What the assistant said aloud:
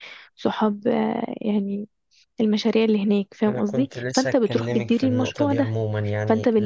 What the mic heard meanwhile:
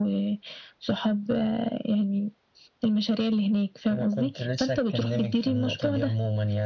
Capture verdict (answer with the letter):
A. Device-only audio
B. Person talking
A